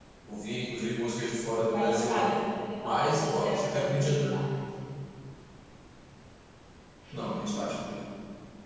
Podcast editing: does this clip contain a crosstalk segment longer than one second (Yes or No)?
Yes